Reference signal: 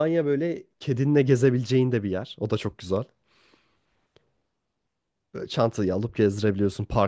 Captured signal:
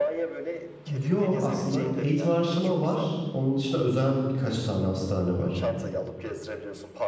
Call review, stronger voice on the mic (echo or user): user